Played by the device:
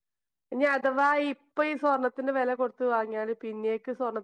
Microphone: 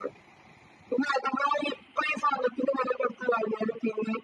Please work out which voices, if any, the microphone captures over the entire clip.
echo only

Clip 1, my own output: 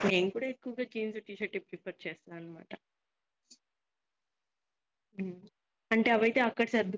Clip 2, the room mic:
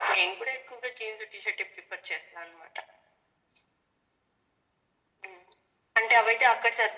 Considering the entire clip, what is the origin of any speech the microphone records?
echo only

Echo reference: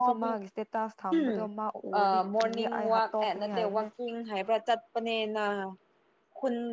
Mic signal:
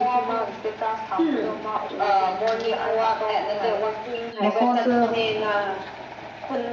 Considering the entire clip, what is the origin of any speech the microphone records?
both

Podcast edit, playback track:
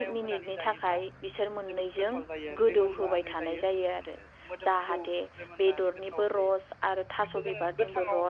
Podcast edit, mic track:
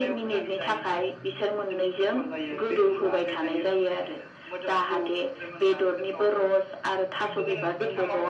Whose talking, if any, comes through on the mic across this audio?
echo only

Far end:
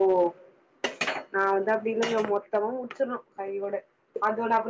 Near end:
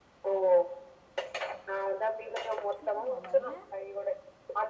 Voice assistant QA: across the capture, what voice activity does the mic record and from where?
both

